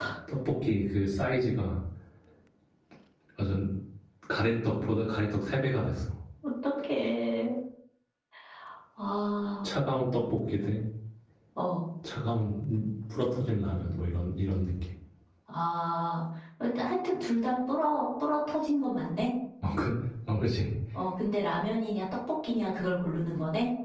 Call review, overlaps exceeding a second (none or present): none